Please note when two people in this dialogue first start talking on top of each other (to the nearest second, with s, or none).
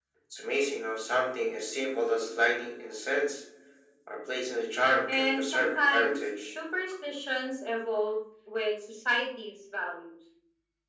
5 s